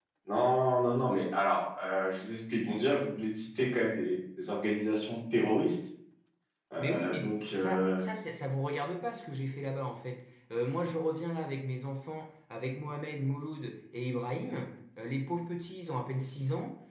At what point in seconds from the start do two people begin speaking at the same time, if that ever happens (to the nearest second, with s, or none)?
7 s